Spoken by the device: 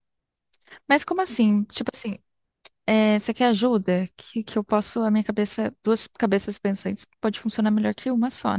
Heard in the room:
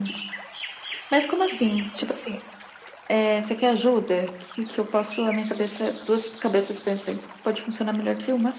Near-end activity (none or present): none